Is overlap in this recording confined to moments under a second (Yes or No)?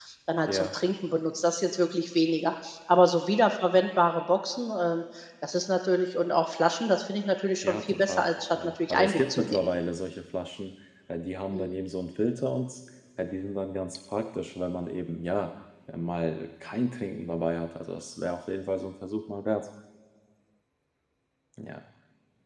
No